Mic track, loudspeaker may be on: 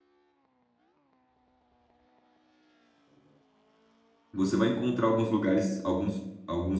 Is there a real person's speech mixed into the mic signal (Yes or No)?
Yes